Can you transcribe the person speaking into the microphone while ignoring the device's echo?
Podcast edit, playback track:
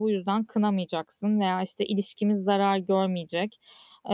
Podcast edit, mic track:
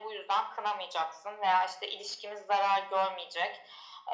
none

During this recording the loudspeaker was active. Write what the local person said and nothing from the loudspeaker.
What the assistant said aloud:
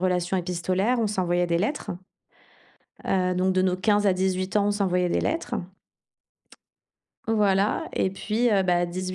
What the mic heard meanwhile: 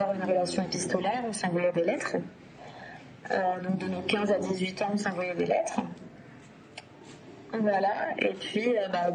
none

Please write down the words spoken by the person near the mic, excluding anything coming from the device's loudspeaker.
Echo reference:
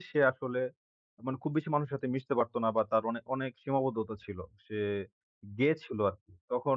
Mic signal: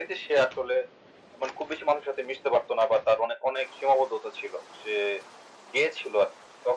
none

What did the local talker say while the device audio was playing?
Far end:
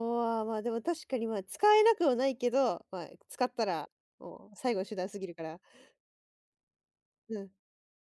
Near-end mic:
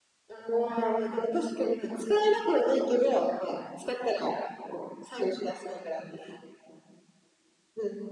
none

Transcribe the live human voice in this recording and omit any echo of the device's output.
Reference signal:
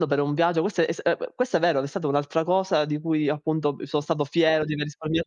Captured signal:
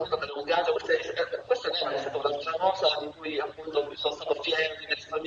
Certo.

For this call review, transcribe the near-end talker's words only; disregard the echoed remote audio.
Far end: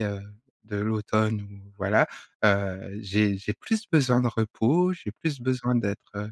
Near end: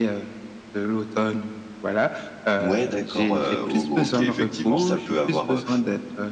Ouais d'accord, heu, O OK, effectivement ça peut avoir, heu

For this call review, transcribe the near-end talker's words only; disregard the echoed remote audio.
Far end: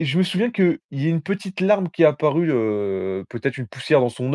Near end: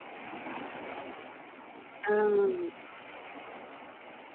Ah.

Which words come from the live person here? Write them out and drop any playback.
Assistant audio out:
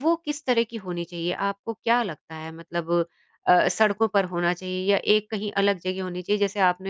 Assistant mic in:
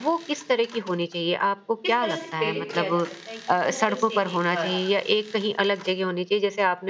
किस तरह से प्रेरित किया जा सकता है कि वो फिर से एक बार

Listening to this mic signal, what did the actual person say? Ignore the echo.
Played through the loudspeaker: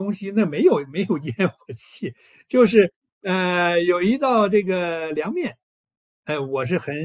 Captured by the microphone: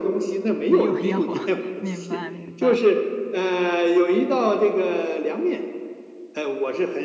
没有烟火，明白明白。

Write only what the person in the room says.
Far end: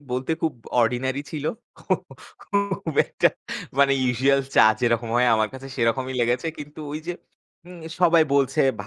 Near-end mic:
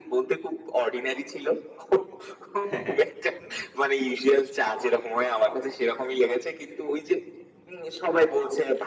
হ্যাঁ, হ্যাঁ।

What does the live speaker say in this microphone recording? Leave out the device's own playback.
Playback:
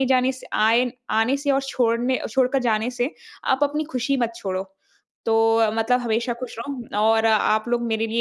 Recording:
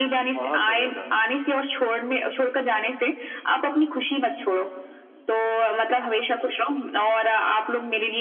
बहुत बढ़िया कहा, जी।

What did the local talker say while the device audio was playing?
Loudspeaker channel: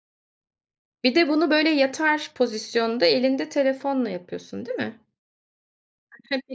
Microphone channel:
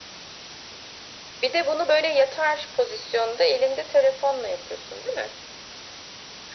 none

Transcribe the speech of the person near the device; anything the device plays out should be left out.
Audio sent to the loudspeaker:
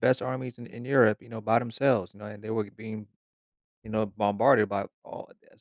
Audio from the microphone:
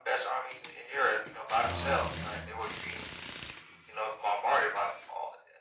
Um,

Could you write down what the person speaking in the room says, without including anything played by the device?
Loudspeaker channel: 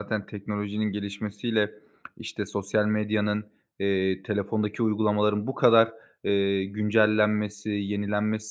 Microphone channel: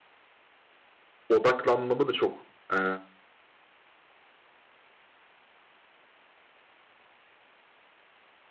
Odaklanmamı da çok, eee,

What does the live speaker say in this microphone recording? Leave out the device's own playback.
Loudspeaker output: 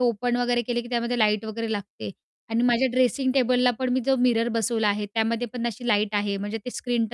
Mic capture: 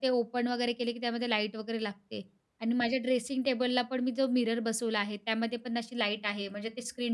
none

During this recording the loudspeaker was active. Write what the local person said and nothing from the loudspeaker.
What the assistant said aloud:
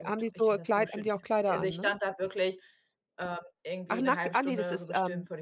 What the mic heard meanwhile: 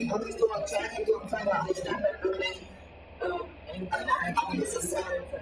none

